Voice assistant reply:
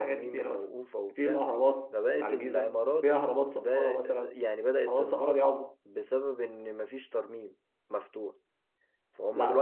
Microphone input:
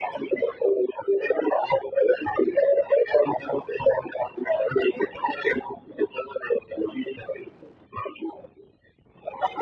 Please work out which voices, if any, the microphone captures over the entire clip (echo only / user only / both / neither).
echo only